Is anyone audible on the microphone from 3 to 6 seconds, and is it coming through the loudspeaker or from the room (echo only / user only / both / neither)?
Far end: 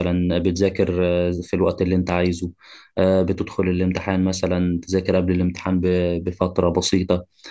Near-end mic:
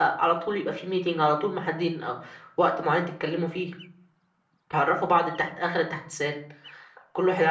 user only